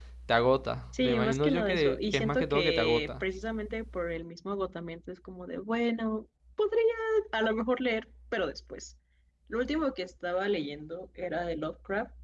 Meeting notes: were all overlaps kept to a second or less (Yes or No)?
No